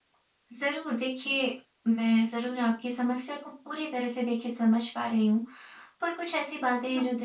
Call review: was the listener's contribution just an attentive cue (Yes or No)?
Yes